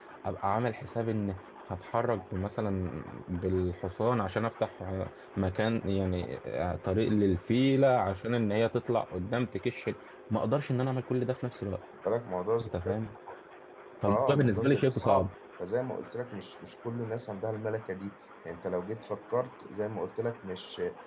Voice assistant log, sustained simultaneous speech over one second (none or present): present